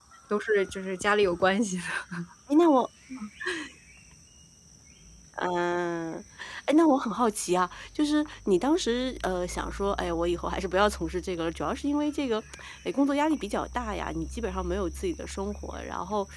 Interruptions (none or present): none